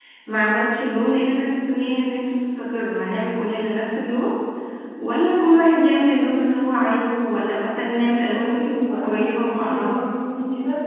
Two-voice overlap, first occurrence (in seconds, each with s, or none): 8.3 s